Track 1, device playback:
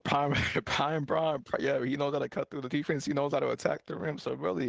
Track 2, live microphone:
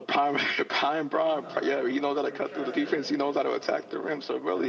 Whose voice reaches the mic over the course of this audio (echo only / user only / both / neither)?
both